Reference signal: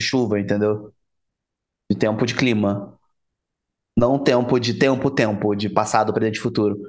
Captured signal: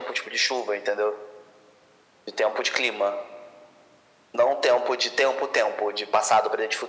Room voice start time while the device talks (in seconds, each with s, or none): none